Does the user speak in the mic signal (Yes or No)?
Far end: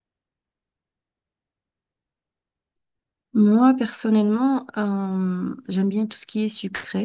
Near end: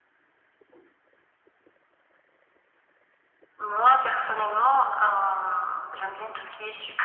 No